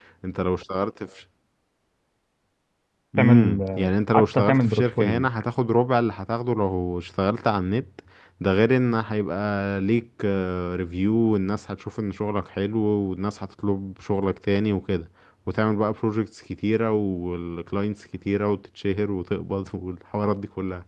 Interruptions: present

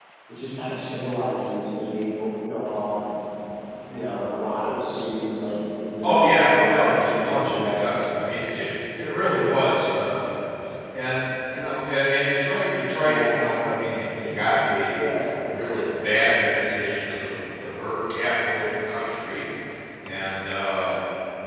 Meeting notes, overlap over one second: present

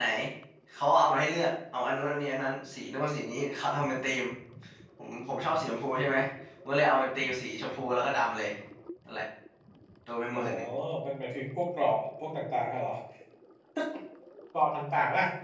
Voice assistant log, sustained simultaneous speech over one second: none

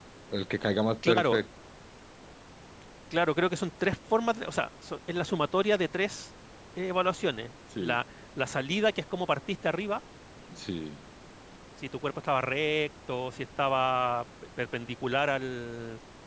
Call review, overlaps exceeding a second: none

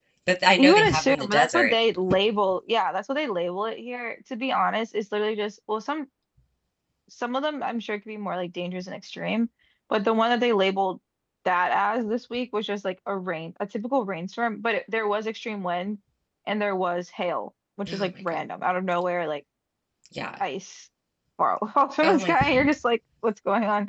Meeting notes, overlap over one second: present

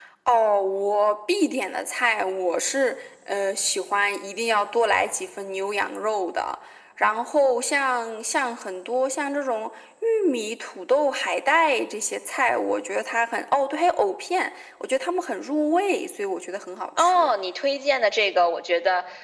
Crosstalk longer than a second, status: none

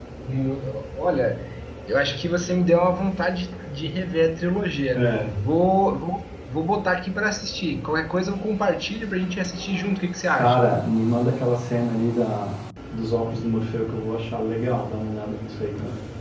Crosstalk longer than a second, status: none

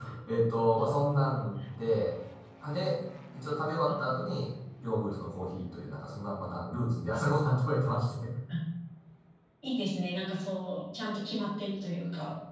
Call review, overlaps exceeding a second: none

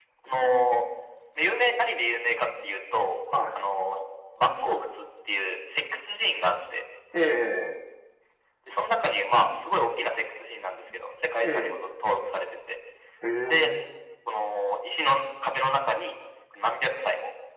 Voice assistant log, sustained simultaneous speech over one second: none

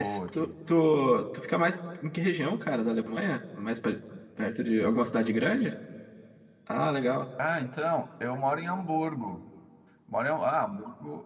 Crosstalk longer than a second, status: none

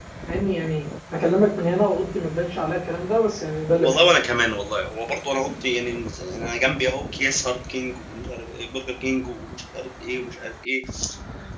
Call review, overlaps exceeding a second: none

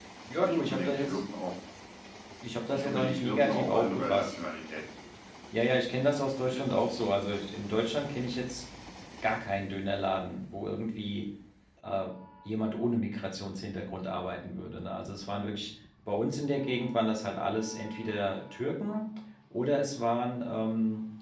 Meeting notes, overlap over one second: present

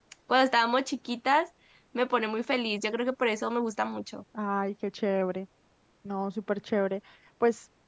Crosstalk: none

